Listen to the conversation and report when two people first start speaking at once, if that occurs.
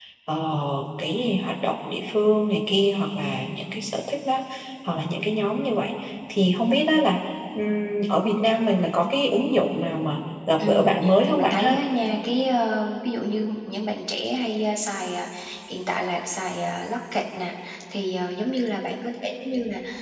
10.6 s

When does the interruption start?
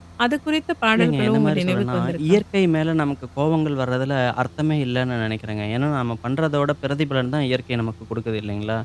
1.0 s

